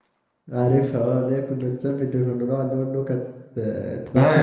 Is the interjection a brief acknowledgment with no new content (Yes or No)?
No